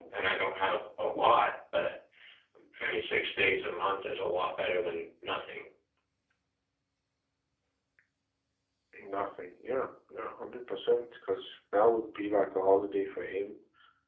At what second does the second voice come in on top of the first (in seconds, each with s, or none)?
none